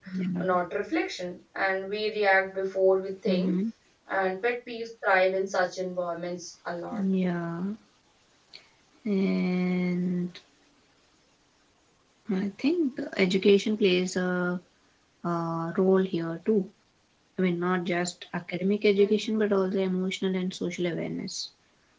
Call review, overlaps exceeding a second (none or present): none